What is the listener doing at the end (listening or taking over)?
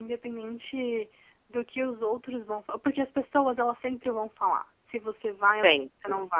listening